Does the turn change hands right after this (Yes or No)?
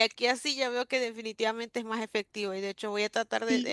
No